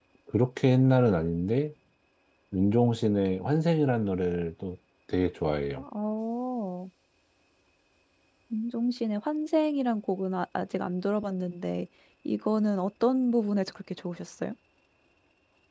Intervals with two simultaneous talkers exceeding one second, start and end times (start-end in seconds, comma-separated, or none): none